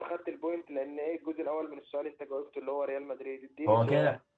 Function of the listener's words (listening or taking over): taking over